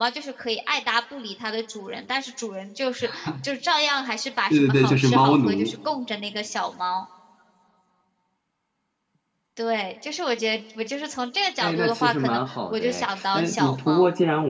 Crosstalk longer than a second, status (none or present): present